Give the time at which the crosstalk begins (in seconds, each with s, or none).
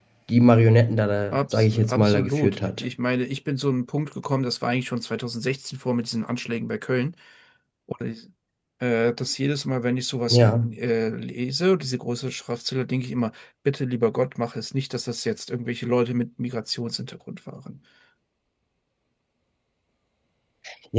1.3 s